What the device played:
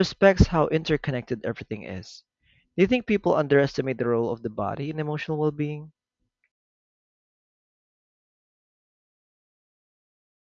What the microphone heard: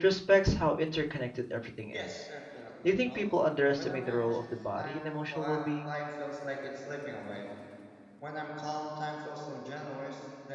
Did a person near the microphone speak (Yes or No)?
Yes